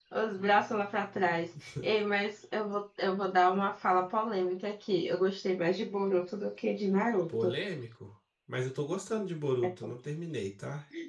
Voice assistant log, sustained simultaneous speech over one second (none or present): none